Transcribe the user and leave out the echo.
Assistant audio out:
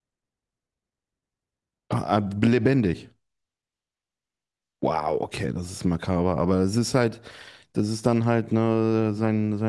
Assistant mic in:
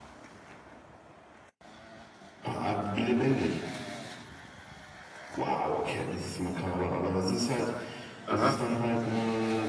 Aha.

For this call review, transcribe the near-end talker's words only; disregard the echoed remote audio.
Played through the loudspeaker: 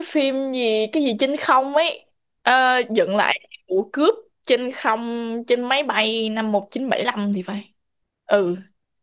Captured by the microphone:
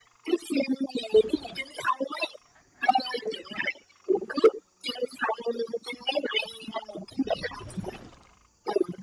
none

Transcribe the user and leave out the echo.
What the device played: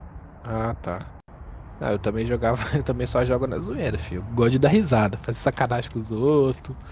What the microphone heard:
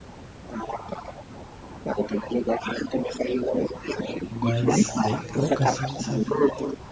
mas bem pouco assim, sabe?

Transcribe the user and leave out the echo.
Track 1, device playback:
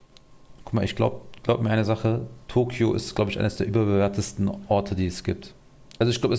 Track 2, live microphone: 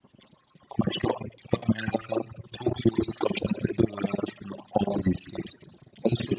none

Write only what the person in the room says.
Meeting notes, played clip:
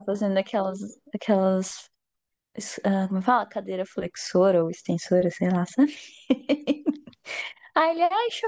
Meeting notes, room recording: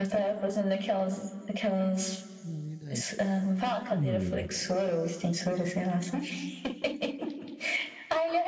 é verdade. Hum,

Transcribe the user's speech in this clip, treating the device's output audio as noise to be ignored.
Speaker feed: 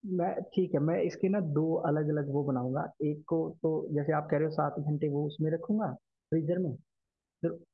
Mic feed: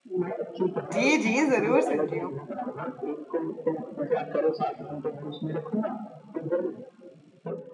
जी जी जरूर सुन रही हूँ

